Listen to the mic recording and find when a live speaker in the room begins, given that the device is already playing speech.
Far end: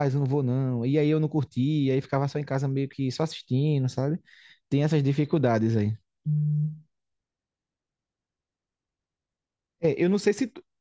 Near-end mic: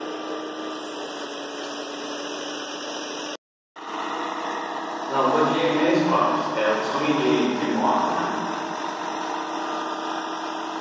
5.1 s

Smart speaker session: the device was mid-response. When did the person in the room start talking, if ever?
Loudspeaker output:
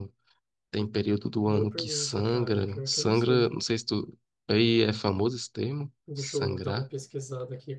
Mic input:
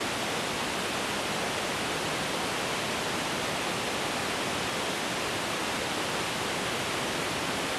none

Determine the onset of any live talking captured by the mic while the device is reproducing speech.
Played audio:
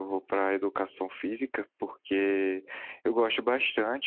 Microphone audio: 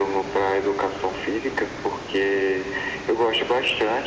none

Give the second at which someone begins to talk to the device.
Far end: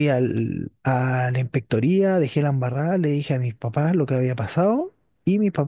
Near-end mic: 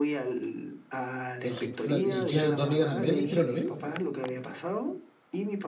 1.4 s

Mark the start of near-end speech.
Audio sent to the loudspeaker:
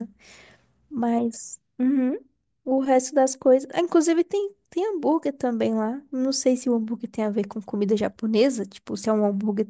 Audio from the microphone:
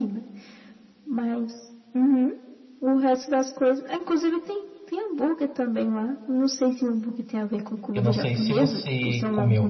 7.9 s

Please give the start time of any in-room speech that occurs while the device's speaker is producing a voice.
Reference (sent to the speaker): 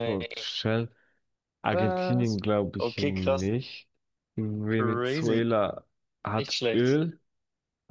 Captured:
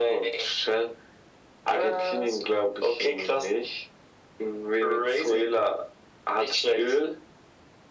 none

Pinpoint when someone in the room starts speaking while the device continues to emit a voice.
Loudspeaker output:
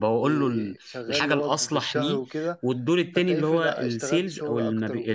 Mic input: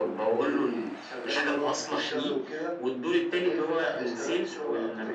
none

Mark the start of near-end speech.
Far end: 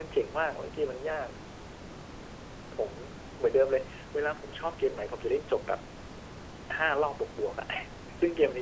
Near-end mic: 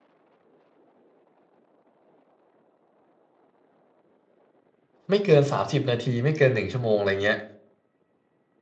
5.1 s

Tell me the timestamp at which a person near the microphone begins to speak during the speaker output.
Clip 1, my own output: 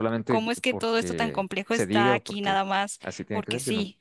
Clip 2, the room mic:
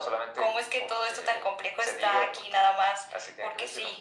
none

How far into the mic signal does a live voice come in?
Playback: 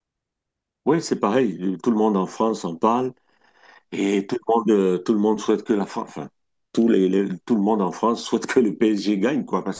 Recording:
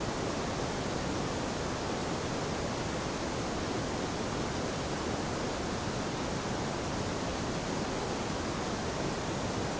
none

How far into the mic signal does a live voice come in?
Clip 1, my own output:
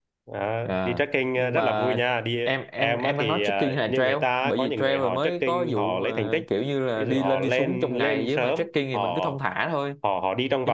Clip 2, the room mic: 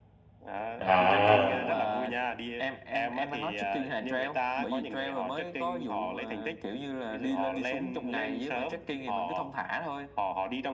0.8 s

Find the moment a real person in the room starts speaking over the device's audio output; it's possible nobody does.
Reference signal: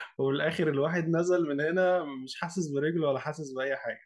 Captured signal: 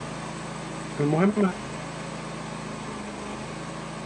1.0 s

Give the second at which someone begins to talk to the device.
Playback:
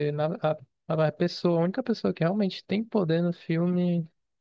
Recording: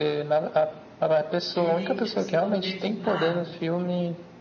1.5 s

